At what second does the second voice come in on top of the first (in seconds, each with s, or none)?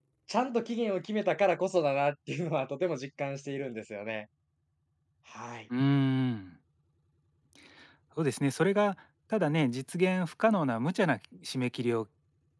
none